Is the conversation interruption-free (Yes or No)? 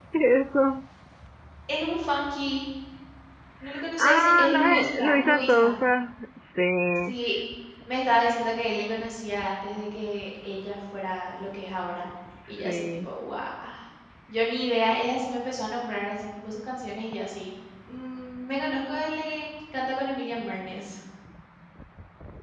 No